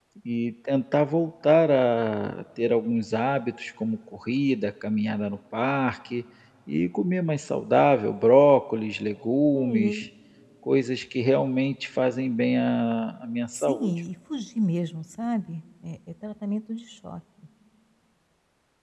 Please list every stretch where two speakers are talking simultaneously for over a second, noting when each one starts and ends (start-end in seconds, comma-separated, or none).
none